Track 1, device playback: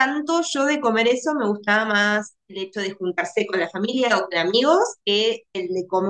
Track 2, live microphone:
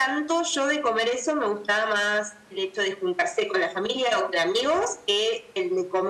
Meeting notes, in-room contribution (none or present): none